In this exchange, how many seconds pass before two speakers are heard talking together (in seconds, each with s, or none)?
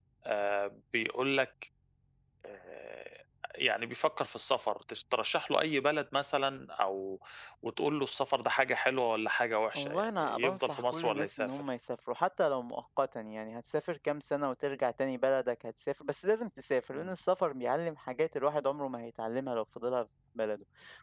9.7 s